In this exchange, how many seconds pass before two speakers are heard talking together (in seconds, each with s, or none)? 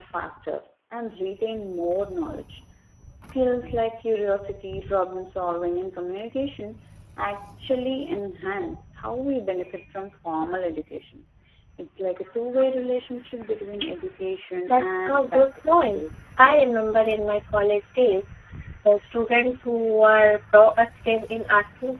14.7 s